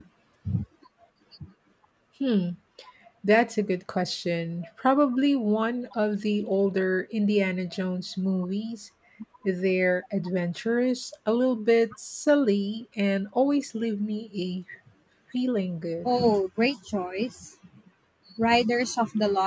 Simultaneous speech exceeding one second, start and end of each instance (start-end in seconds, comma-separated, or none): none